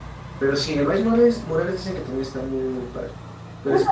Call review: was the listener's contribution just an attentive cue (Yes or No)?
No